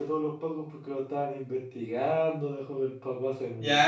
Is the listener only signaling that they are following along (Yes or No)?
No